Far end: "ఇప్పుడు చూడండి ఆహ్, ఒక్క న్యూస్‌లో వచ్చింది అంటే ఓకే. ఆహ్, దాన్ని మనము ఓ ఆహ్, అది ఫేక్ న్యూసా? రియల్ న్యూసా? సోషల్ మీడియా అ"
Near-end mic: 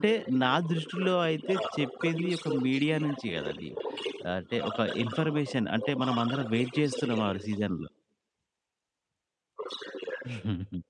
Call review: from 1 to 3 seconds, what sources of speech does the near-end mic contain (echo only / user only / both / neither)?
both